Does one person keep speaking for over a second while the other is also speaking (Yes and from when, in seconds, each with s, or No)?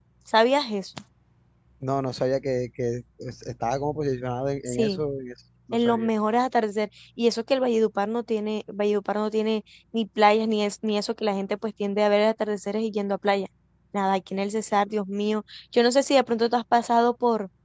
No